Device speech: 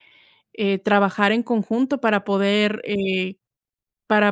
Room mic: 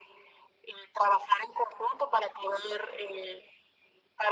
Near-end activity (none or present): none